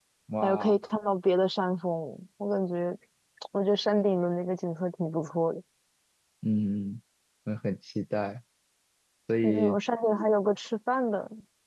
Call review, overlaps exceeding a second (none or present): none